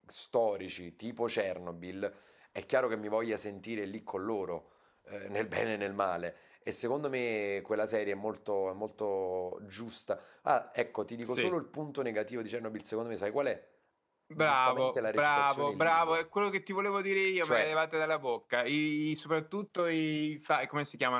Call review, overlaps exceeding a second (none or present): present